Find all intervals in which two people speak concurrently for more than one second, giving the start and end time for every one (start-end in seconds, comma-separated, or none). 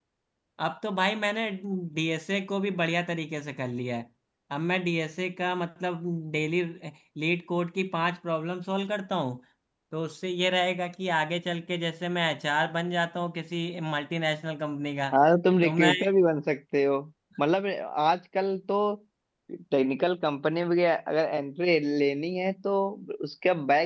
none